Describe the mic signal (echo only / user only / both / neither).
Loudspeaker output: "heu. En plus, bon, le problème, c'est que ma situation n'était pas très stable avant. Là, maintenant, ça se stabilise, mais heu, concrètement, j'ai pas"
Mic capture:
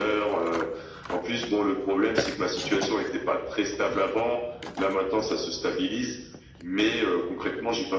echo only